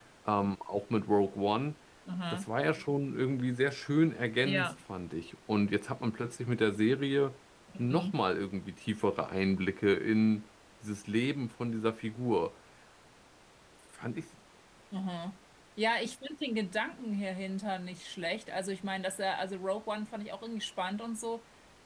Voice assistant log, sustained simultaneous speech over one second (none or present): none